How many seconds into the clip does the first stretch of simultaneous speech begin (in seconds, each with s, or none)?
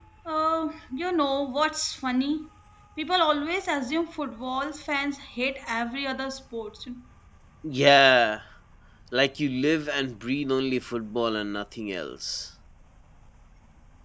none